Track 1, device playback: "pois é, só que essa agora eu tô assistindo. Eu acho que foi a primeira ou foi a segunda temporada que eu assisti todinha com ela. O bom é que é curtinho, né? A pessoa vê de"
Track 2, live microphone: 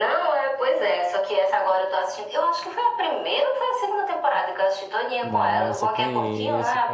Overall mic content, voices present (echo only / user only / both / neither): both